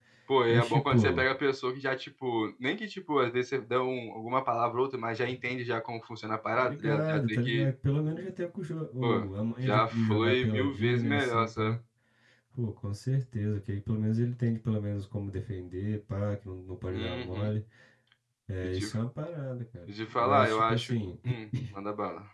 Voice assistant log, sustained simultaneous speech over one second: present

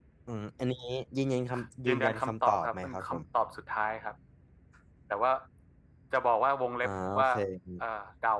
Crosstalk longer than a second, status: present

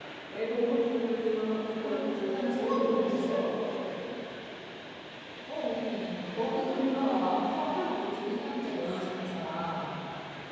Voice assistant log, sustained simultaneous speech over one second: present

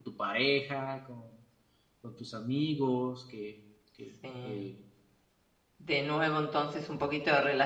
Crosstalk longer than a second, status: none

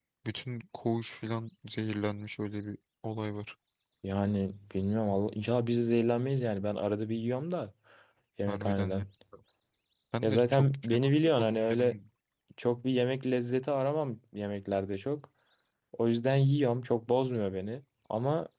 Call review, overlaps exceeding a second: present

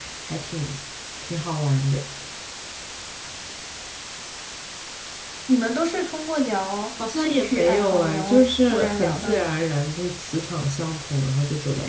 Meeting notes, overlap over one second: present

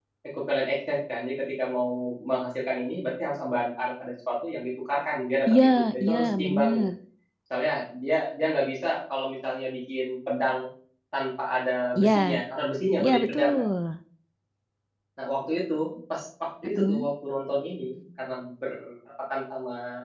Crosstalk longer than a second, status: present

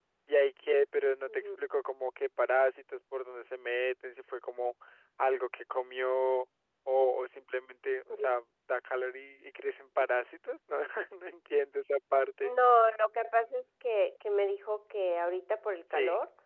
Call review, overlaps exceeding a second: none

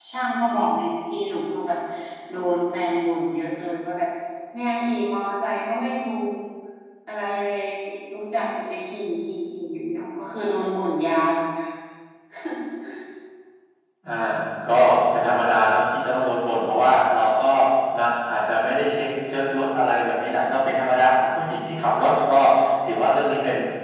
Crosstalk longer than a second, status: none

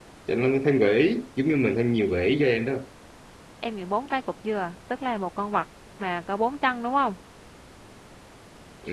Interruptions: none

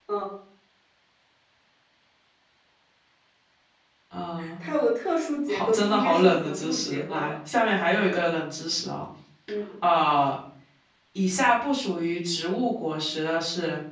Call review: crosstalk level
present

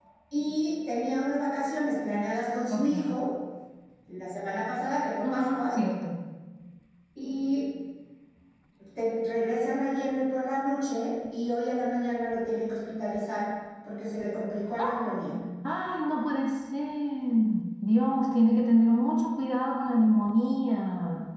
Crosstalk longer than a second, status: none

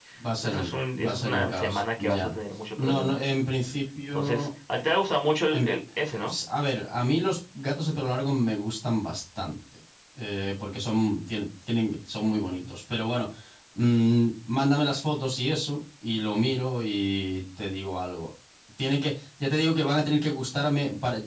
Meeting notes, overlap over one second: present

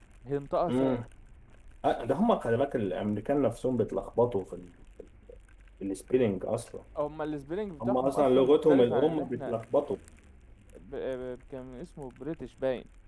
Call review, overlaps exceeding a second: present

